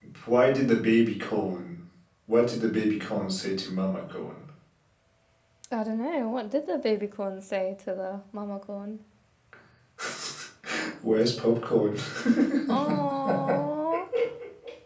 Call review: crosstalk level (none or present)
none